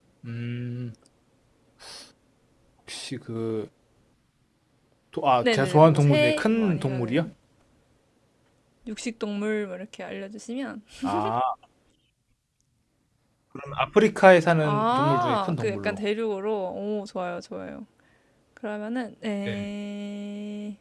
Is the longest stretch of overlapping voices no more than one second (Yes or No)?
No